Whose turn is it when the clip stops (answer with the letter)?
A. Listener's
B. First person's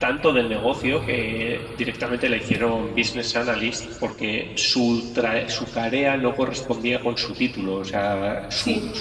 B